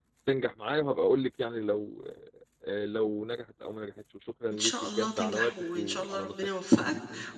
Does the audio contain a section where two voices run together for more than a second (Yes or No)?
Yes